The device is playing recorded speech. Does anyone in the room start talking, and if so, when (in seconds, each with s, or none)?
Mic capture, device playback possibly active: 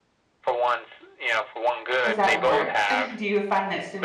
1.8 s